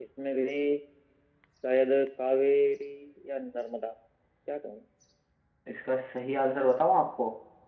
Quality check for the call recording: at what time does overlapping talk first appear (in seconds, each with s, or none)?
none